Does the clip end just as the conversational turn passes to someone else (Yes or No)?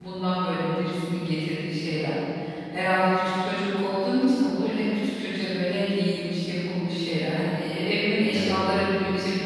No